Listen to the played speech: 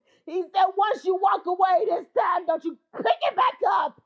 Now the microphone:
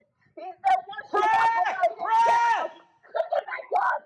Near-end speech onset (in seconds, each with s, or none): 1.1 s